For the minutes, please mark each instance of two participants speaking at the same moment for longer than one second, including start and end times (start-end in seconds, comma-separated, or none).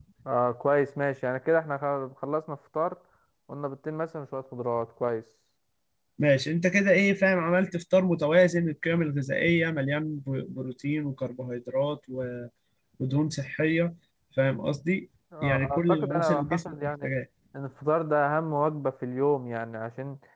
15.4-17.1